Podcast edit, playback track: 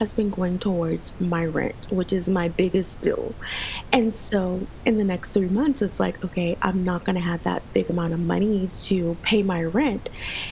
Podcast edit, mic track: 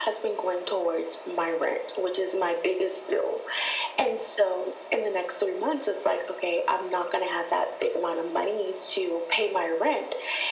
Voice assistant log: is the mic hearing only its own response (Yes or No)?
Yes